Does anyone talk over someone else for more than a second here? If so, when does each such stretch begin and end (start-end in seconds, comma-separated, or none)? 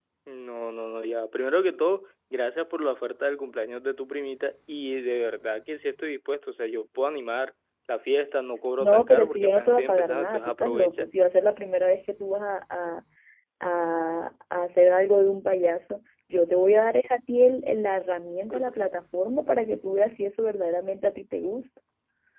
8.8-11.1